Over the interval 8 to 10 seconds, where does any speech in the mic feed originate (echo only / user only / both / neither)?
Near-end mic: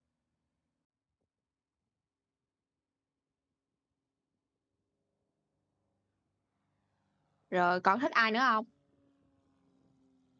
user only